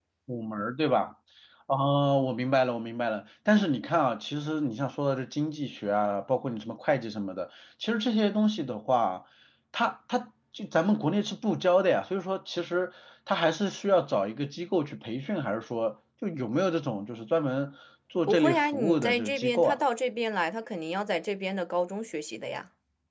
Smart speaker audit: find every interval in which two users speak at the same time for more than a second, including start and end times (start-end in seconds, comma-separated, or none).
18.3-19.8